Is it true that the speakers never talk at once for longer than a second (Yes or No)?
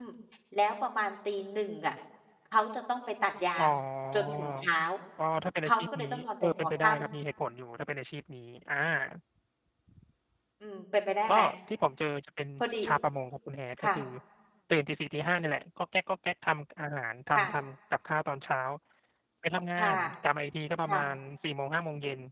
No